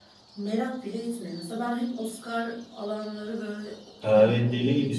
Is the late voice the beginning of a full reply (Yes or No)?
Yes